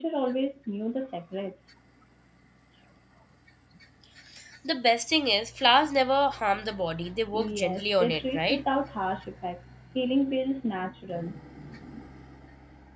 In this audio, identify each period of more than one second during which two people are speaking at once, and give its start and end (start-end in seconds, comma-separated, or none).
7.3-8.6